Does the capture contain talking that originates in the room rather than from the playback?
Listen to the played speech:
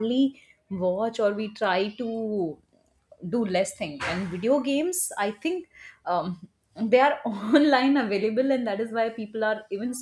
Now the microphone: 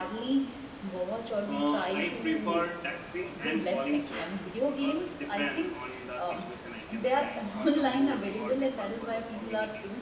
Yes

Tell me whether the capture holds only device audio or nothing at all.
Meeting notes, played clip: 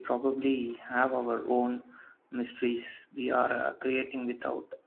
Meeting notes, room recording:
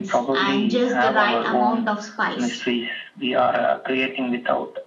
No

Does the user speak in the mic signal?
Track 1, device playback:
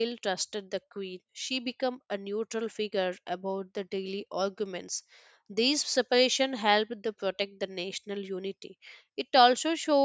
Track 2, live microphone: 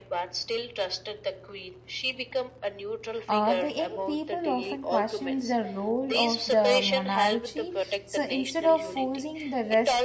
Yes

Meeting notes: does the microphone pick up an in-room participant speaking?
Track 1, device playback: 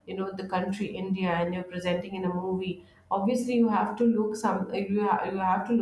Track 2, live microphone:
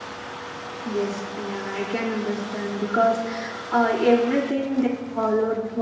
Yes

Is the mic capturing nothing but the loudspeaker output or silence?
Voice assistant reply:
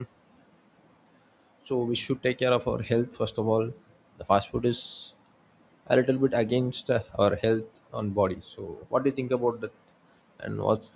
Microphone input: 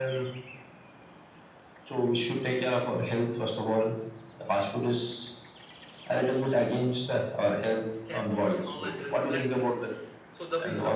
No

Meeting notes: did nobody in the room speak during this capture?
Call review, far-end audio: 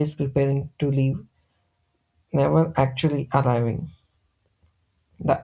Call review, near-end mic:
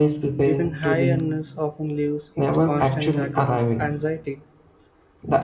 No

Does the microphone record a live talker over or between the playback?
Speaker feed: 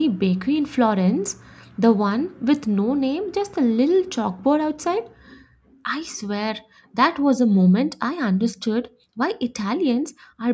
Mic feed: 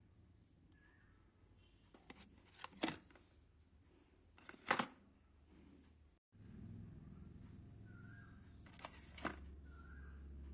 No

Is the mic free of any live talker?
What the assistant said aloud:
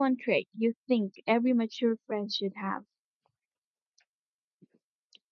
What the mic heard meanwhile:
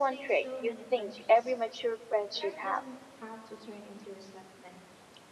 No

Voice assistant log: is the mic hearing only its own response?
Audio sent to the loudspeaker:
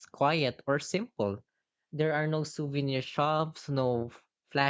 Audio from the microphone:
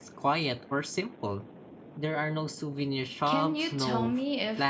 No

